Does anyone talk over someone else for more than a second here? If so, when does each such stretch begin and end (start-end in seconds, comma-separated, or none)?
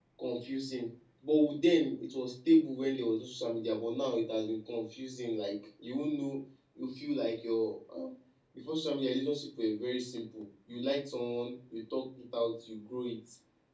none